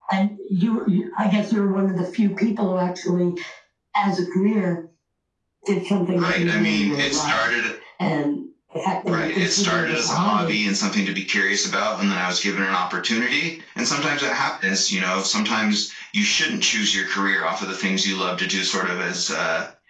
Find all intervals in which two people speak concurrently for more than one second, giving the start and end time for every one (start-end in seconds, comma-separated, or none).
6.1-7.5, 9.1-10.6